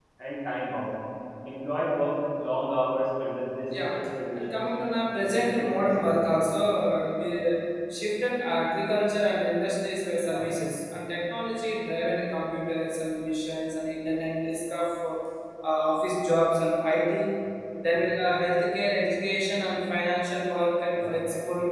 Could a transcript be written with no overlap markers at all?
No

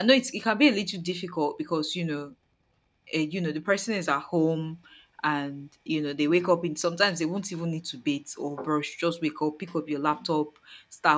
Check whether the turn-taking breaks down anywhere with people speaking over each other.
No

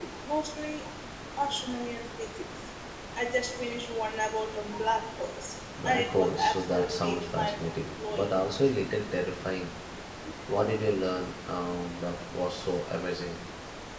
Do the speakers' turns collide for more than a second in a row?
Yes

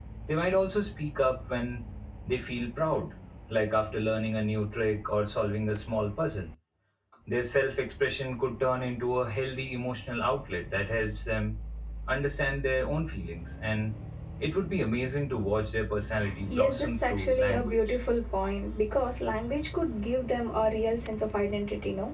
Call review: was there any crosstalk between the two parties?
Yes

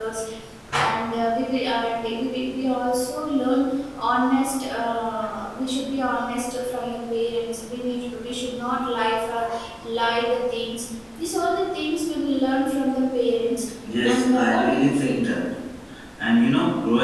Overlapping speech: Yes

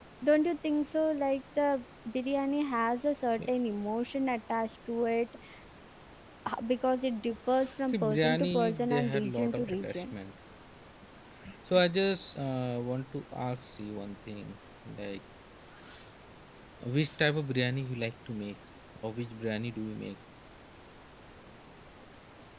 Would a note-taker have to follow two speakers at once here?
Yes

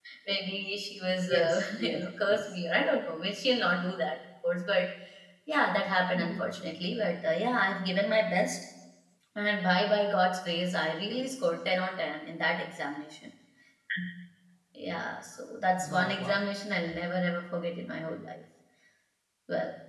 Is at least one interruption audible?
Yes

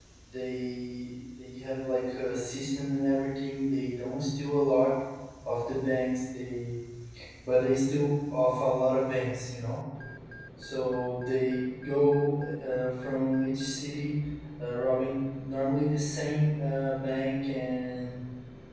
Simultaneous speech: No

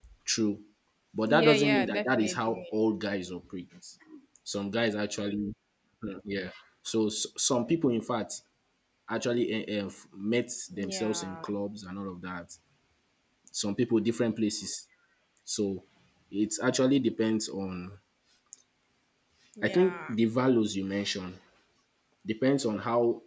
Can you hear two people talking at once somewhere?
Yes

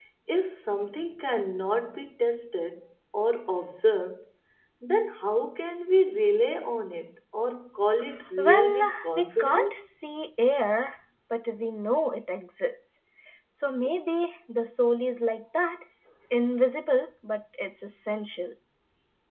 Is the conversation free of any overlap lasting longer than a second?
No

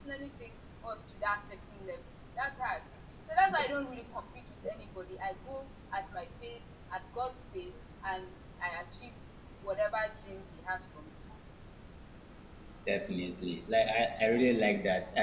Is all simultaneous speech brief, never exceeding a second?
Yes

